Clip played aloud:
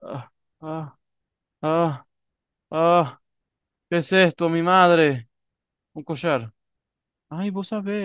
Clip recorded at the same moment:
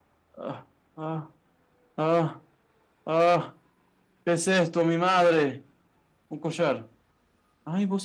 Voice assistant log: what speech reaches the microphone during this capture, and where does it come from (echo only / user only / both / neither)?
echo only